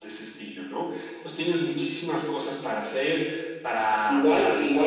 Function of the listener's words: taking over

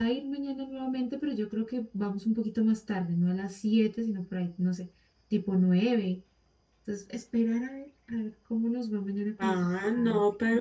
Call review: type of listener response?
taking over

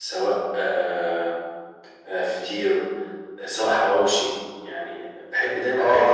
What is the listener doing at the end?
taking over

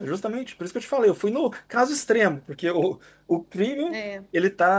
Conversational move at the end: listening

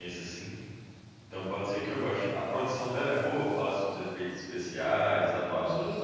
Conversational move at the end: taking over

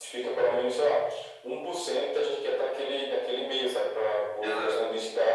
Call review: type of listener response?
listening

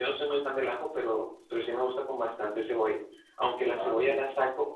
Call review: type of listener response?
listening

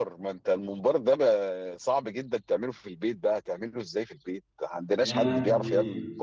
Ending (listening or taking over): taking over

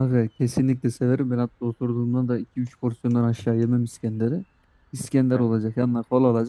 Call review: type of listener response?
listening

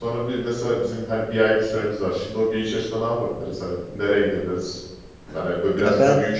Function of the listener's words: listening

